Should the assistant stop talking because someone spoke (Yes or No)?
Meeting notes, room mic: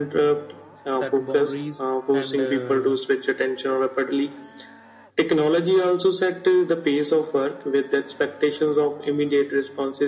Yes